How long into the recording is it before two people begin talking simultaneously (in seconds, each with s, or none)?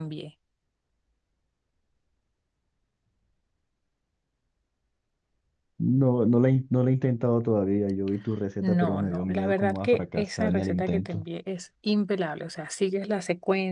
8.6 s